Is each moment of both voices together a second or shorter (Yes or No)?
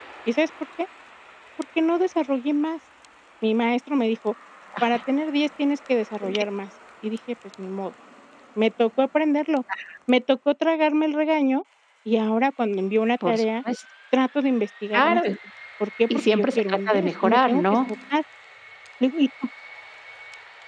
No